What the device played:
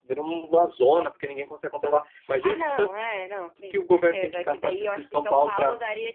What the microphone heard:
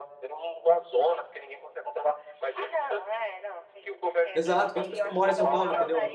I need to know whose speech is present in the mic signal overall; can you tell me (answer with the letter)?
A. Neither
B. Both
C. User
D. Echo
B